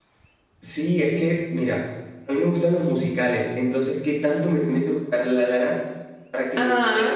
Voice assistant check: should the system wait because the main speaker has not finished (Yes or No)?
Yes